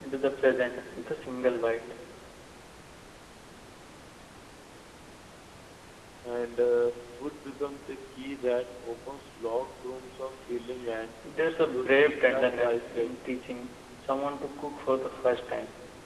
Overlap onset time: 11.7 s

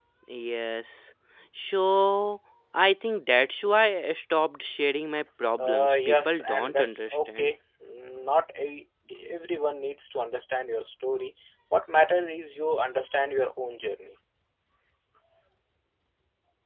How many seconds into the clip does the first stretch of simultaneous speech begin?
5.6 s

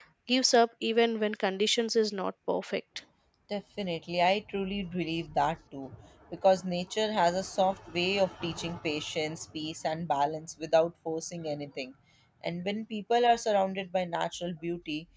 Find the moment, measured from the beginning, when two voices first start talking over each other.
none

